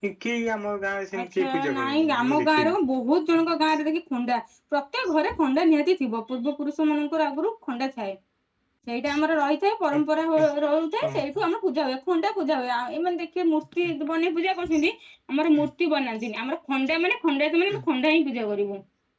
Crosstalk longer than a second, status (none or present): present